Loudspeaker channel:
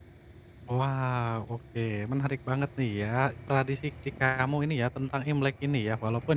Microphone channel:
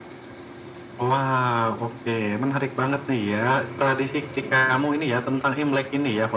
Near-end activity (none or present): none